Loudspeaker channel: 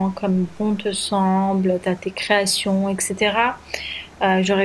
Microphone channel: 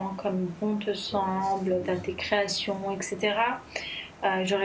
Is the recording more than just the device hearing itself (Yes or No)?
Yes